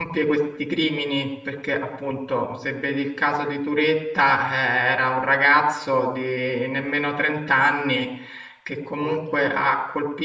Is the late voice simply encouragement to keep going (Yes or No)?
Yes